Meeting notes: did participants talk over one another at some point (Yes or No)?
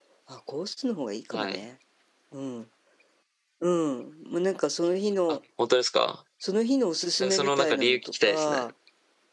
Yes